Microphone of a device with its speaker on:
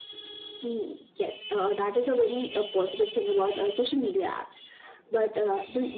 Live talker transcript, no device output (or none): none